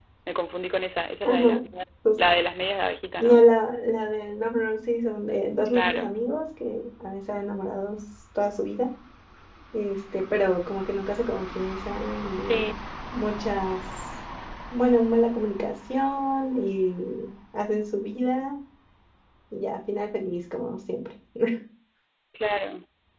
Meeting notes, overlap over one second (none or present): none